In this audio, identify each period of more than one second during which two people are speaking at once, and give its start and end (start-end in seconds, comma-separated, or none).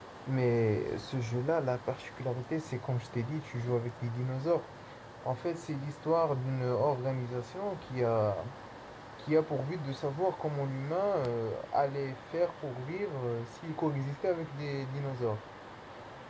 none